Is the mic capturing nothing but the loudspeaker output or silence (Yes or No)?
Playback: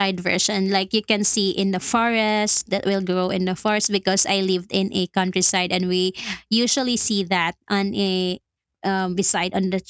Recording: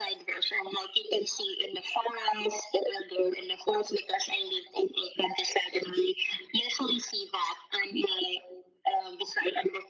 Yes